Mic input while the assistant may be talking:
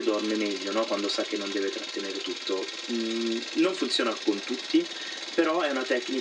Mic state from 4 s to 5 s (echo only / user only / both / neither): echo only